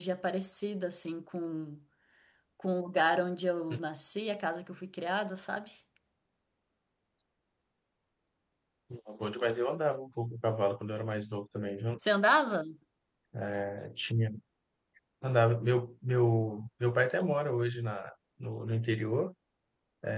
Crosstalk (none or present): none